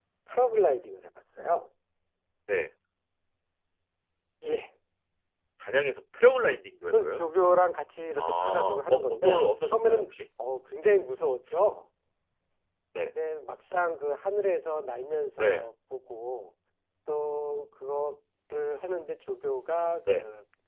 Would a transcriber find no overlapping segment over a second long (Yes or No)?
No